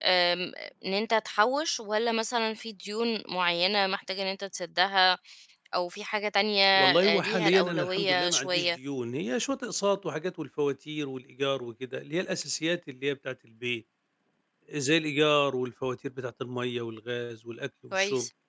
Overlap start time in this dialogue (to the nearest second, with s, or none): 7 s